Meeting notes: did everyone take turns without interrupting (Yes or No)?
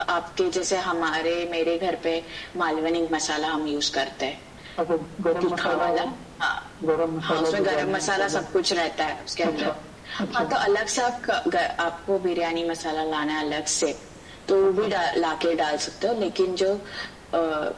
No